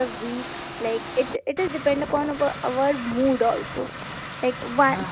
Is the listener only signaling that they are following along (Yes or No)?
Yes